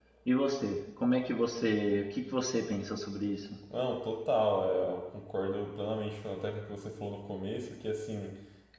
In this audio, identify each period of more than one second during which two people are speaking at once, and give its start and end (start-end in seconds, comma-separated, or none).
none